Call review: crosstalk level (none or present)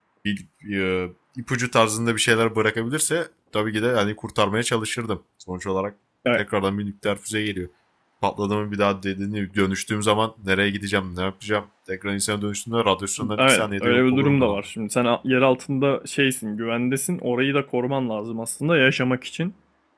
present